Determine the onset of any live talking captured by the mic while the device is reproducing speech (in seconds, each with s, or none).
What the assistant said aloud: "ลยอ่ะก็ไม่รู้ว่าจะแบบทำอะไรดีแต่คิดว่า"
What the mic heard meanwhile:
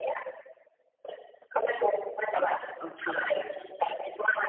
2.4 s